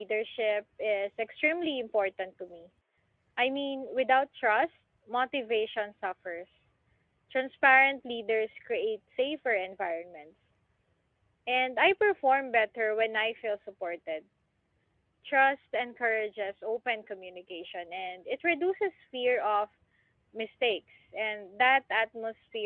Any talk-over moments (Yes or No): No